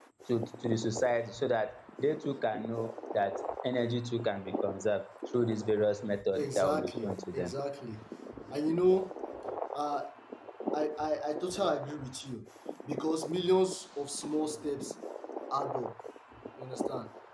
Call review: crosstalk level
present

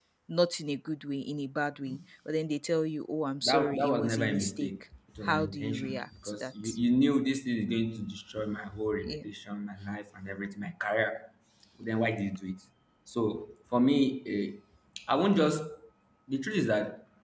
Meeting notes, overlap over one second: present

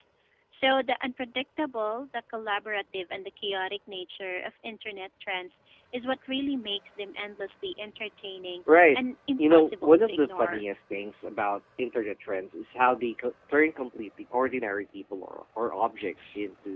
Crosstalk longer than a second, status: present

